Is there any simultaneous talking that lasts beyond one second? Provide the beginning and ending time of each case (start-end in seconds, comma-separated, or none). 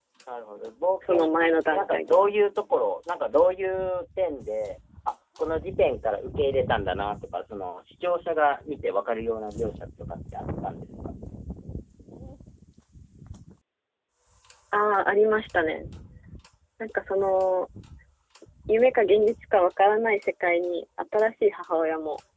1.1-2.3